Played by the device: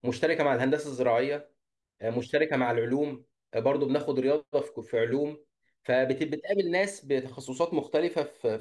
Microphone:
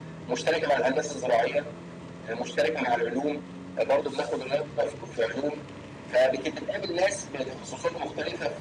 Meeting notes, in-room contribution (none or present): none